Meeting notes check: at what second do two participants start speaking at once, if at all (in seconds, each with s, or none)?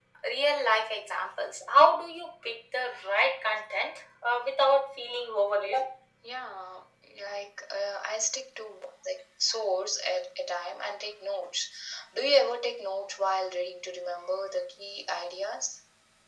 none